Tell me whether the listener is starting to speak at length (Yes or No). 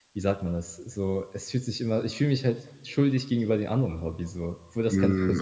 Yes